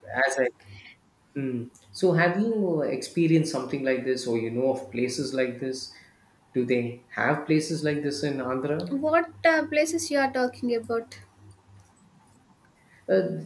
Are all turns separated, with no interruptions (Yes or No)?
Yes